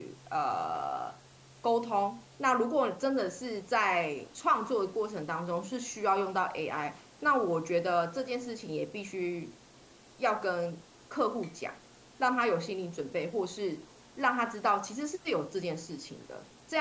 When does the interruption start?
none

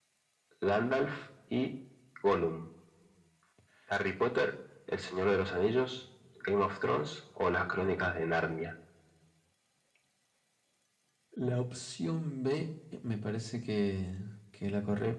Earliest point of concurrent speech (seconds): none

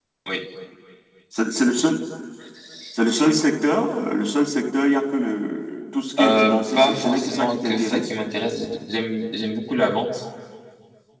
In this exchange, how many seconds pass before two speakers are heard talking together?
6.2 s

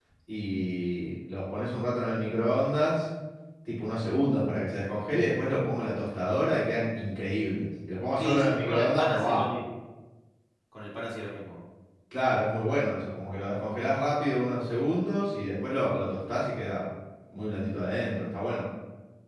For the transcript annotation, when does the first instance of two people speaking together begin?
8.2 s

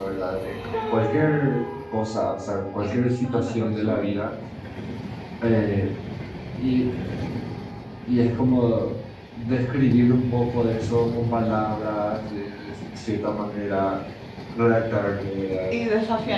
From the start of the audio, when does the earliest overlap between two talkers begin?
2.8 s

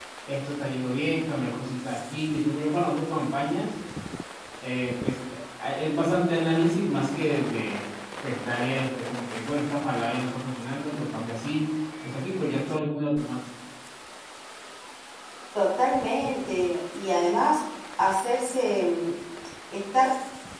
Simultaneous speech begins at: none

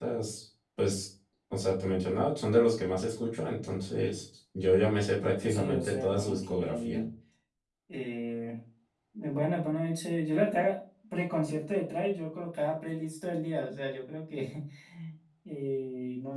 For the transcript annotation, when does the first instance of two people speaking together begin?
5.5 s

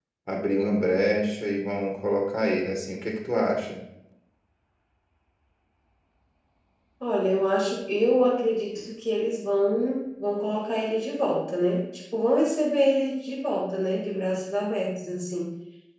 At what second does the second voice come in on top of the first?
none

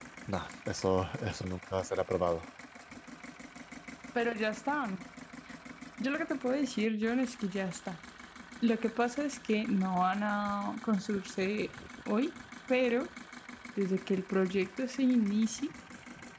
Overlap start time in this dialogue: none

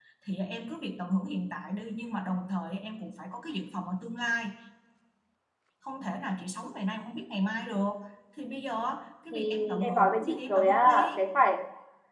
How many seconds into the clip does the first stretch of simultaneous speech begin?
9.3 s

